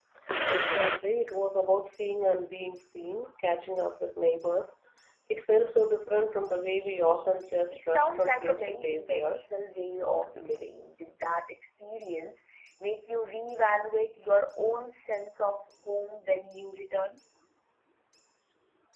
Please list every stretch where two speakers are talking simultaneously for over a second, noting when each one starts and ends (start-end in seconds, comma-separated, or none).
7.7-9.4